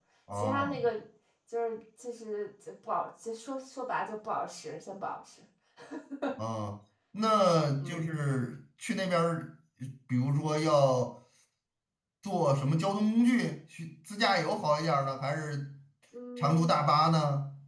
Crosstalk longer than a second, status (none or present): none